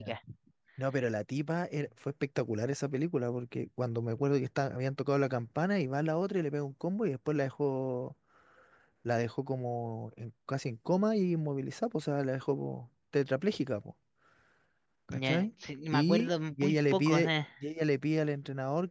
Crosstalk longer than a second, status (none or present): present